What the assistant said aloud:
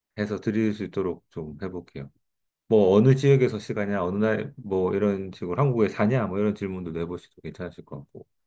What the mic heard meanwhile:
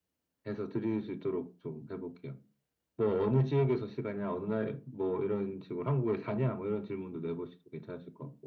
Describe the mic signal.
echo only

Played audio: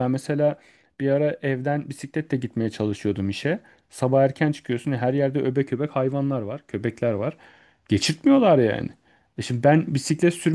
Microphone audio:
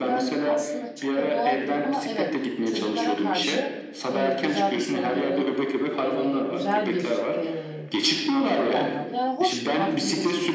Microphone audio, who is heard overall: both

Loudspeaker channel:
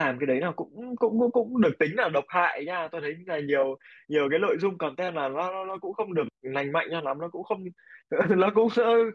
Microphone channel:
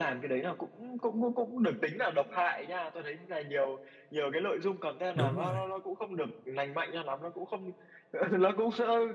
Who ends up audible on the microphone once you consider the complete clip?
both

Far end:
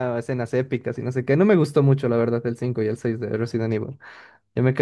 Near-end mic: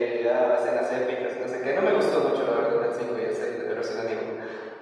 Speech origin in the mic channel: echo only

